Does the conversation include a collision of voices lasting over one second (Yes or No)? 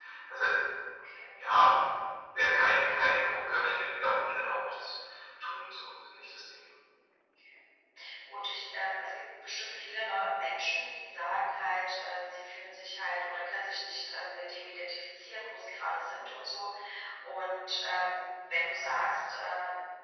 No